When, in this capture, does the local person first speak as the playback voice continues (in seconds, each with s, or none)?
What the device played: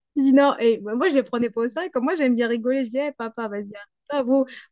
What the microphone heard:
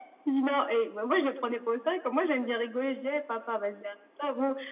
none